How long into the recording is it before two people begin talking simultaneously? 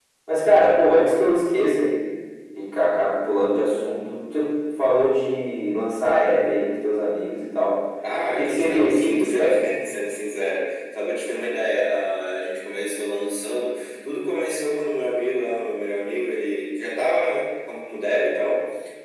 8.3 s

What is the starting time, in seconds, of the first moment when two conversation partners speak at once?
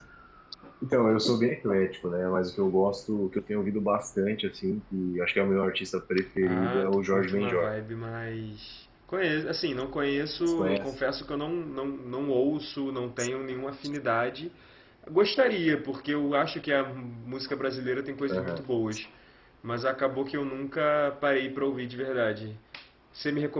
6.4 s

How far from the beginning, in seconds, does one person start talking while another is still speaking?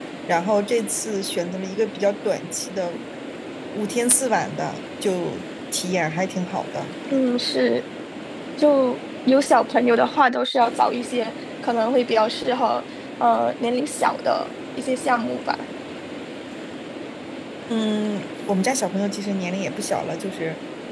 none

